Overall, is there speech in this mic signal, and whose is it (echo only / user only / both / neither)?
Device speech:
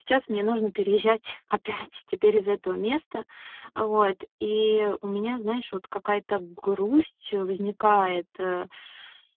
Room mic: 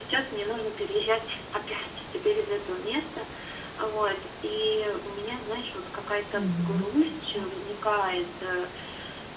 both